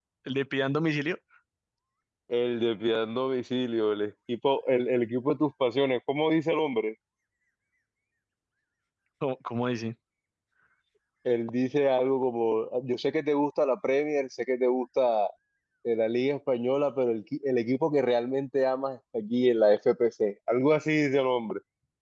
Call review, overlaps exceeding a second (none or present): none